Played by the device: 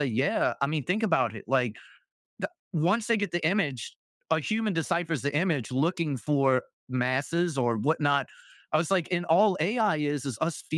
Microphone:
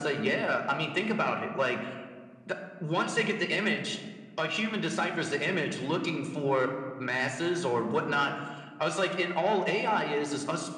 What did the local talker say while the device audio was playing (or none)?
none